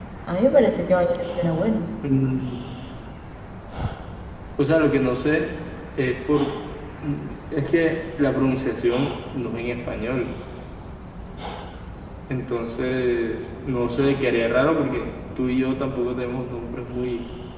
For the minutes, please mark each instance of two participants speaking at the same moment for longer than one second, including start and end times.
none

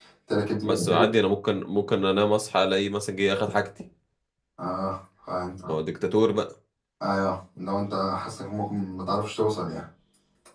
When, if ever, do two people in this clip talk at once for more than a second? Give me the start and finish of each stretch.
none

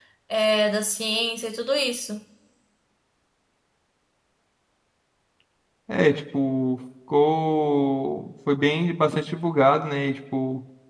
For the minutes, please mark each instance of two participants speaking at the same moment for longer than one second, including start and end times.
none

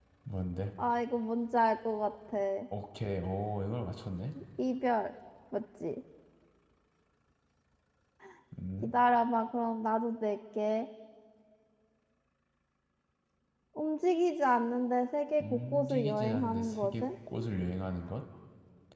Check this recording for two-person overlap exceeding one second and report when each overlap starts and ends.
15.4-17.1

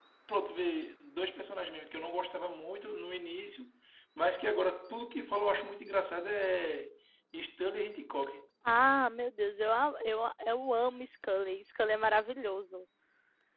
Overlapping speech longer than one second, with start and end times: none

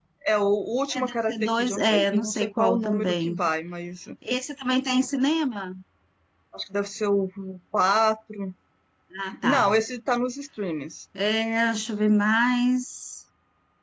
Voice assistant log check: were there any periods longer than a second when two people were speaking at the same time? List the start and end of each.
1.0-3.4

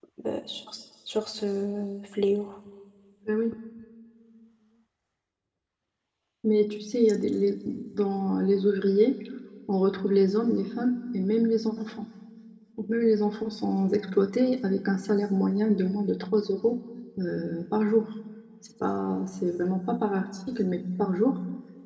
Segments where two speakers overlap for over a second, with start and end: none

